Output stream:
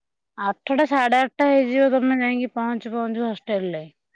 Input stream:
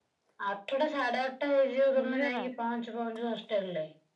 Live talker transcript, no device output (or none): ବୁଝିଲ ନା।